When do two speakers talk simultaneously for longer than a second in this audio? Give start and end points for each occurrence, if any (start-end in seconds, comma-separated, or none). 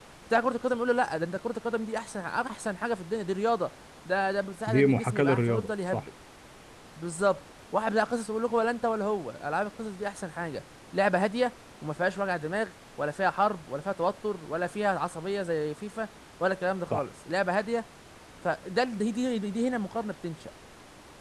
4.7-6.0